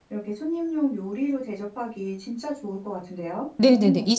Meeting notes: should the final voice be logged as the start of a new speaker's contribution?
Yes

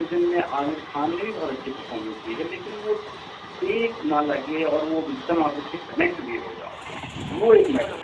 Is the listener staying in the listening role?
No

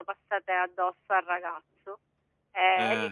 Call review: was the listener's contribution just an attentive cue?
Yes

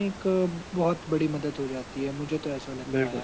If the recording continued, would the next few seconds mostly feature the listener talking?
Yes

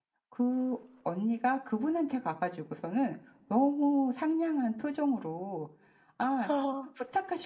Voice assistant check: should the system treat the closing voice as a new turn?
No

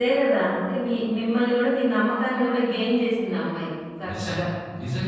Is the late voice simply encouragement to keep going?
No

